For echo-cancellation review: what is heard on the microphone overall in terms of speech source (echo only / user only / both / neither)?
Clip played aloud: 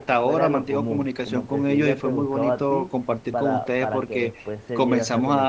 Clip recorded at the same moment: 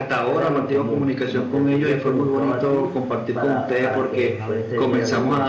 both